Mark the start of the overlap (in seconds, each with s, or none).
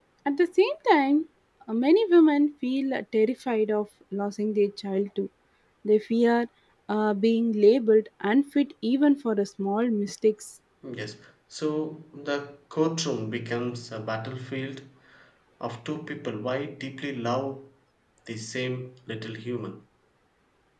none